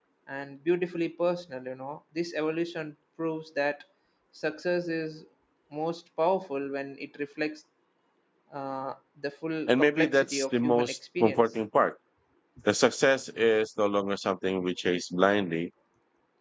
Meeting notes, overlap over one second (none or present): present